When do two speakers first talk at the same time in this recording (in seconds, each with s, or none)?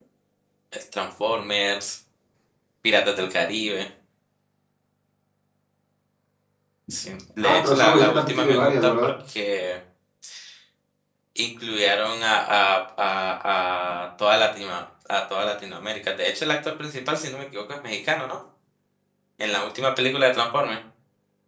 7.4 s